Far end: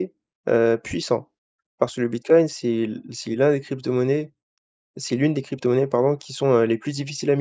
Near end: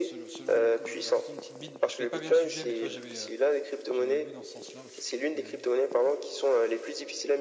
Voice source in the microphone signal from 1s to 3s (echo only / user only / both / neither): both